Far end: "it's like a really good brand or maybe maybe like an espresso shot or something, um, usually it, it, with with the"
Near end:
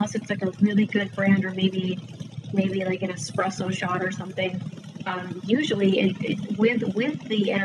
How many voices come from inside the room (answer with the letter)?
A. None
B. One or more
A